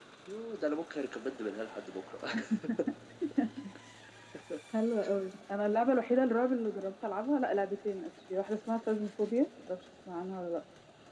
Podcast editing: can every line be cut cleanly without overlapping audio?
Yes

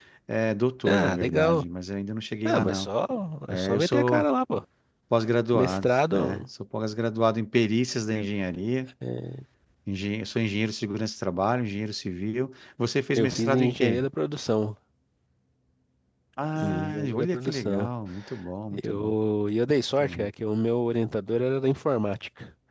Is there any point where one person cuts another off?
Yes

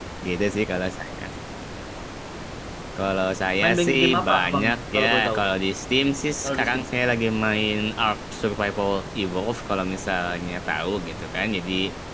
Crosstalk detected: Yes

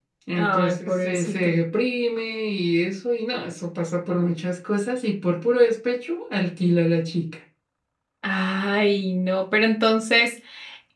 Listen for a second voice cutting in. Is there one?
Yes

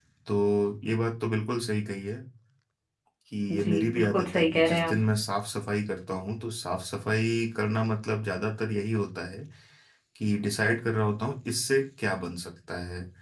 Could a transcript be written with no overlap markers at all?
No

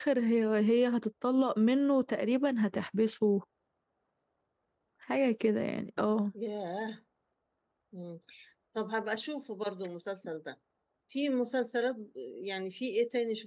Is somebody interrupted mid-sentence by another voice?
No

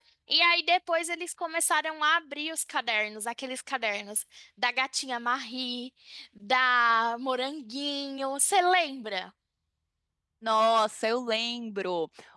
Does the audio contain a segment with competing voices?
No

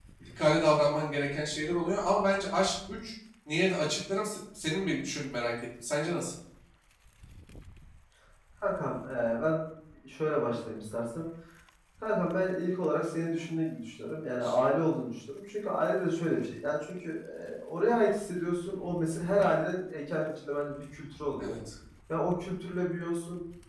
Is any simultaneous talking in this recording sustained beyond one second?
No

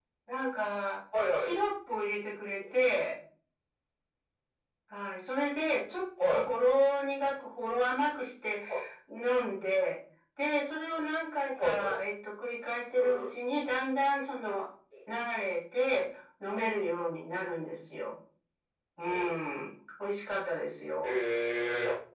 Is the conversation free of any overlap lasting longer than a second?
Yes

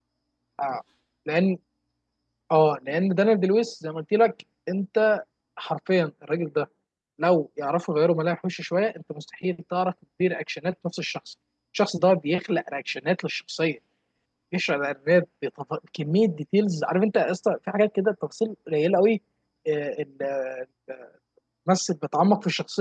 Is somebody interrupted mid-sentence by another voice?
No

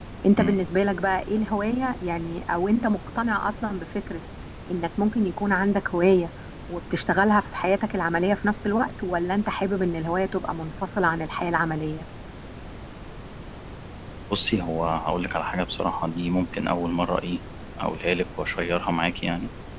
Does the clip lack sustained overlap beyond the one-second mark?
Yes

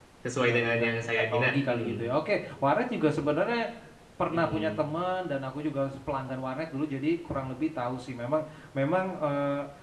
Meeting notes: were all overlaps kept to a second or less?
No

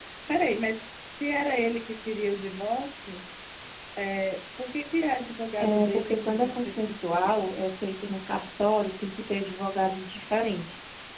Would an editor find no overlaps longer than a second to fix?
No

